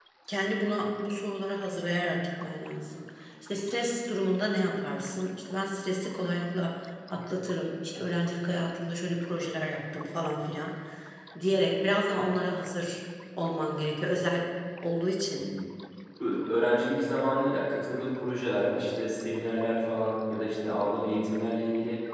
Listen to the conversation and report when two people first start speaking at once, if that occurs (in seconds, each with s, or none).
none